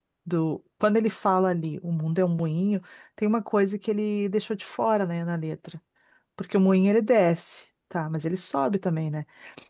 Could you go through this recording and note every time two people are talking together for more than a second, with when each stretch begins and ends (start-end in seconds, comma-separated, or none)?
none